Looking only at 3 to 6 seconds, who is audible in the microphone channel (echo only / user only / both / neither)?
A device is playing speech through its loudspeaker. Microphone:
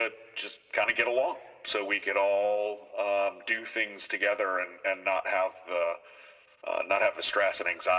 echo only